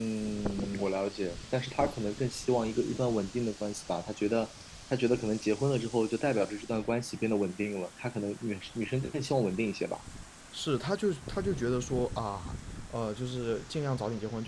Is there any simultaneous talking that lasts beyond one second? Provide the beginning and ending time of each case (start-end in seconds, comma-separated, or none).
none